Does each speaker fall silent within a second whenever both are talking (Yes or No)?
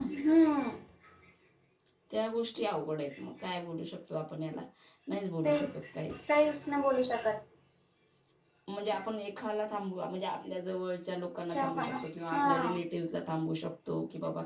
Yes